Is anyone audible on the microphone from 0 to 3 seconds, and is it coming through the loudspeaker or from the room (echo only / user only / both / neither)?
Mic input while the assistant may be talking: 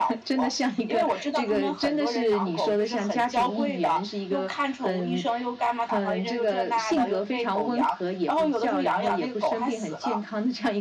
echo only